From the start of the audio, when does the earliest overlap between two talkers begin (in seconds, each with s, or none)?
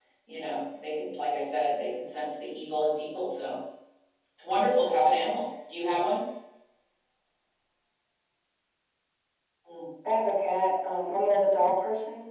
none